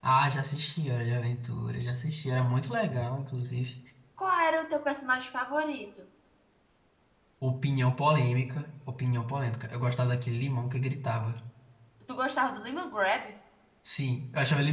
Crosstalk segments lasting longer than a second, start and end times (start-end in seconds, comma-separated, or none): none